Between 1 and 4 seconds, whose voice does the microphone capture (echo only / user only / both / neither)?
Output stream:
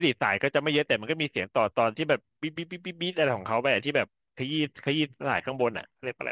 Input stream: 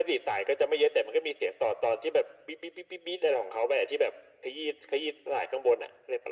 echo only